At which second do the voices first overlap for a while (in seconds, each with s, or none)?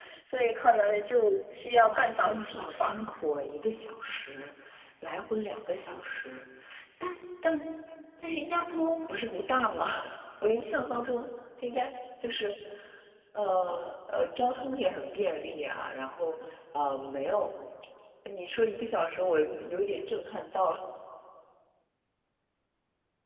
1.8 s